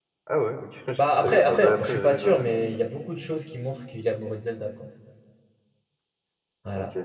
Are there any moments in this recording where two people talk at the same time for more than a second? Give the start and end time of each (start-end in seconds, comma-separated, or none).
1.0-2.5